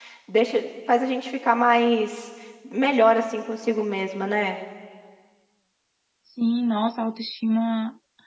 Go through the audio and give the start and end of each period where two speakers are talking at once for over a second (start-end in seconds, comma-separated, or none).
none